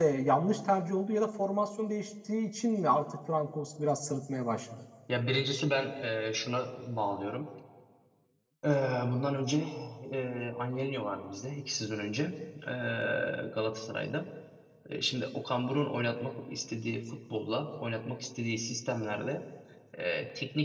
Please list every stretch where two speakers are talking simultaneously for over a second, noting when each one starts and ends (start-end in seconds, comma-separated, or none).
none